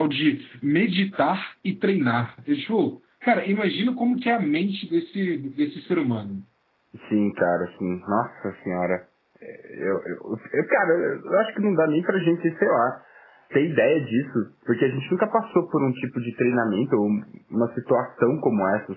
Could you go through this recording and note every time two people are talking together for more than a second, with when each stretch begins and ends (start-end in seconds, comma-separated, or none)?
none